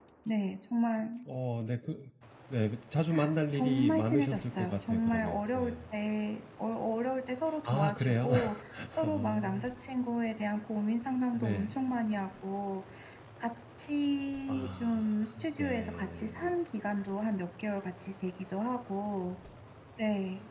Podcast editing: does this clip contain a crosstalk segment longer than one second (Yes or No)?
Yes